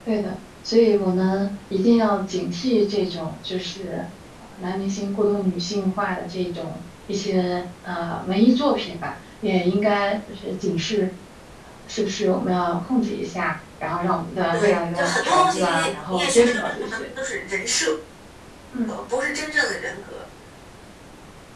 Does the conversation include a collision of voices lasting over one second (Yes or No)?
Yes